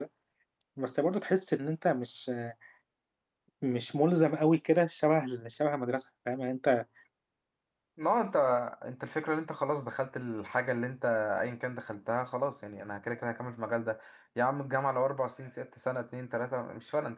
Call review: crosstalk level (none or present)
none